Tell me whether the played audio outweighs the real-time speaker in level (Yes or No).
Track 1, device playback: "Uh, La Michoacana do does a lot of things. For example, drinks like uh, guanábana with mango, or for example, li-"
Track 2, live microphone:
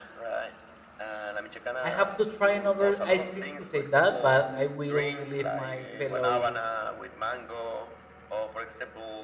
No